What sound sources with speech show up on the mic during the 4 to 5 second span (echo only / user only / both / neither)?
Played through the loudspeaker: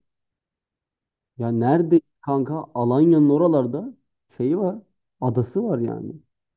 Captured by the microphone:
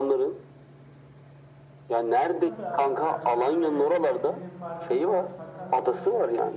both